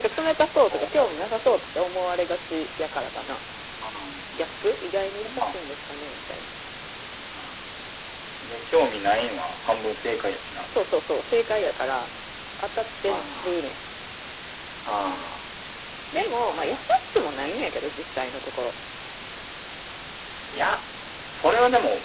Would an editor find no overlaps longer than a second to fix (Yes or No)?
Yes